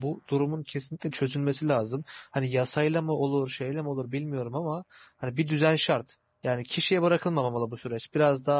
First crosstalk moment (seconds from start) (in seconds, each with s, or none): none